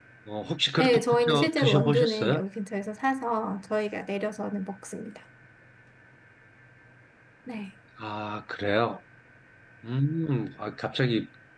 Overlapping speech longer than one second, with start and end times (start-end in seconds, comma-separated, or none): 0.8-2.4